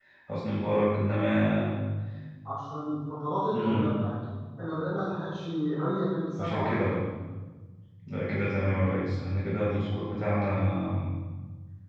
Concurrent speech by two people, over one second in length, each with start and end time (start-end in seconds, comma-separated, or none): none